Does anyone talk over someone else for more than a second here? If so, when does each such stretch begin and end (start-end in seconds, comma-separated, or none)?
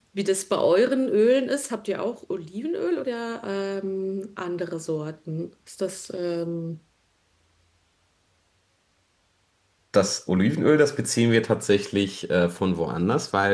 none